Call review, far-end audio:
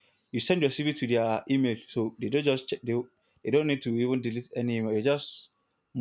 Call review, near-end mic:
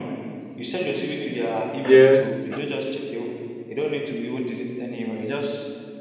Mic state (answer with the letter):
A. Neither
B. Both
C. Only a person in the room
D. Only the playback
B